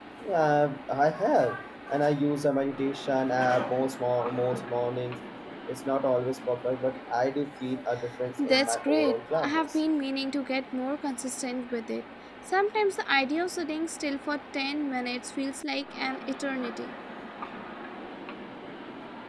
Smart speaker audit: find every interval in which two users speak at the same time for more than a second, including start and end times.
8.4-9.8

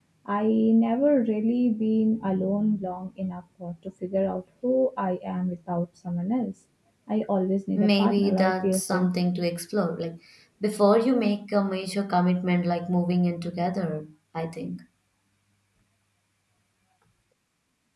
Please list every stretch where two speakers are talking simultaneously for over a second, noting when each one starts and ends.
7.8-9.1

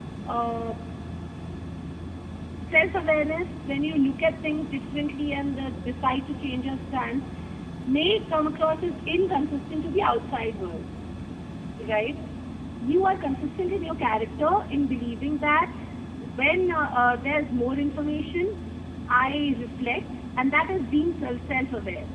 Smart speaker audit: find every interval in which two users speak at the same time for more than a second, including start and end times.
none

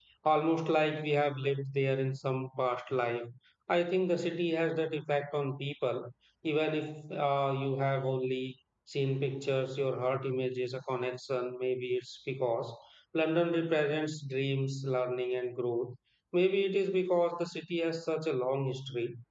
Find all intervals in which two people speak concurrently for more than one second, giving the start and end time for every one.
none

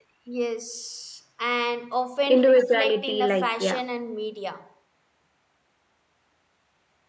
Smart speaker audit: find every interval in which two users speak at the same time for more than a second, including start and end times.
2.3-3.8

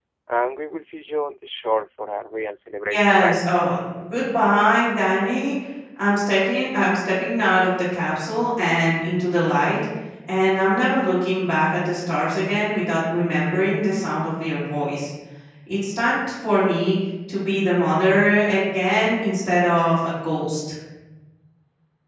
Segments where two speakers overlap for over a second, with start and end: none

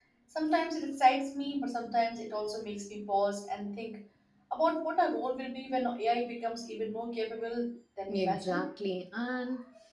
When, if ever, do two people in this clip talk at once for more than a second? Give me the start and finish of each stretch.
none

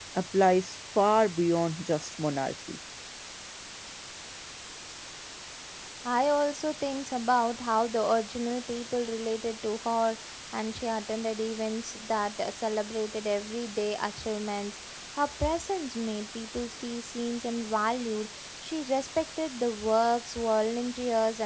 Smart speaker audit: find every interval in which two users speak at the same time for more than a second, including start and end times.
none

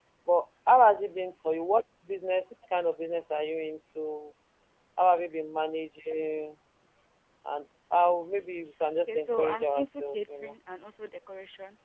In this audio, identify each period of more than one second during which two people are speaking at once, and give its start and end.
9.1-10.5

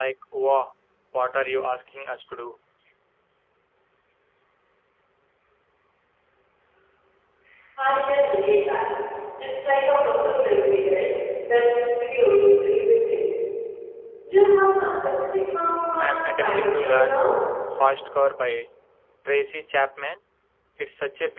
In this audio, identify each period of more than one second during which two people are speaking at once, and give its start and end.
16.0-17.3

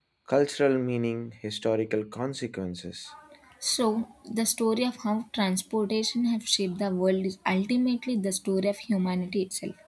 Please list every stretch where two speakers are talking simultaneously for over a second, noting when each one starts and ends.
none

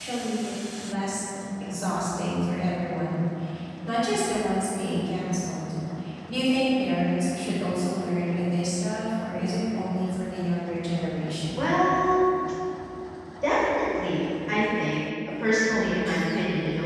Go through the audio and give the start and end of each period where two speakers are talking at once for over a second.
none

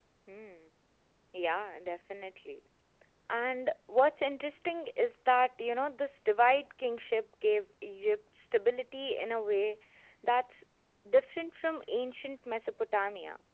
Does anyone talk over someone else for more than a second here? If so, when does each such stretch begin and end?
none

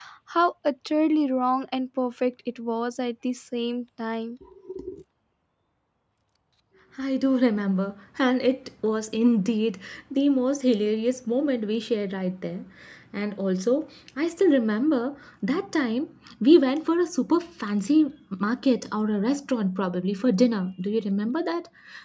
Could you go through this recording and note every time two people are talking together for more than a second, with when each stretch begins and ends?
none

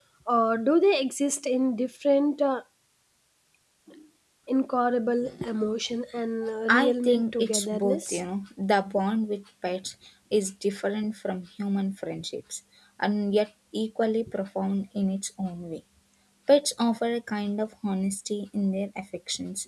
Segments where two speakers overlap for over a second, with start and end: 6.7-8.2

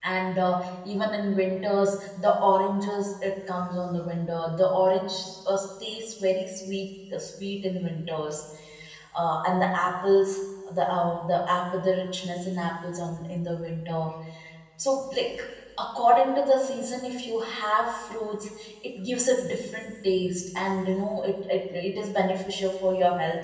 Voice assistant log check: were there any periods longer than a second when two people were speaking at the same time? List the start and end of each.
none

